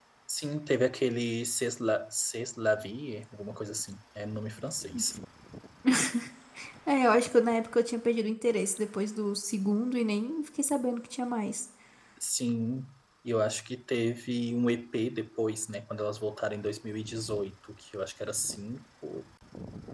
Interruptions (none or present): none